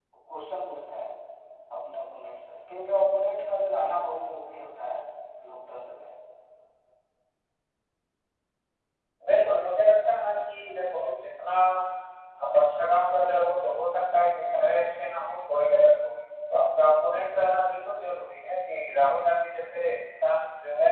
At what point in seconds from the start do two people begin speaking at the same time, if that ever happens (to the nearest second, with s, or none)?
none